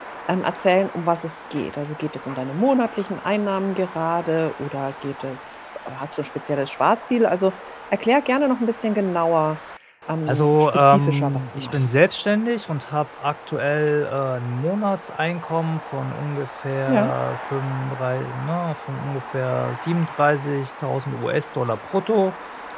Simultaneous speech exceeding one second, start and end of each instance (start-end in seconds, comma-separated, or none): 10.3-11.9